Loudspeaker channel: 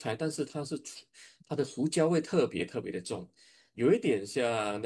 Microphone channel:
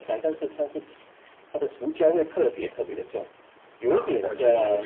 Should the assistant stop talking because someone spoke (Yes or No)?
Yes